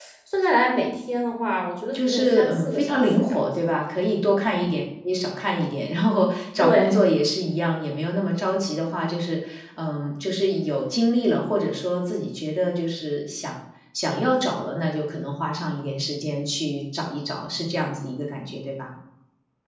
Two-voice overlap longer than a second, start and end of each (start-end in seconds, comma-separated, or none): 1.9-3.4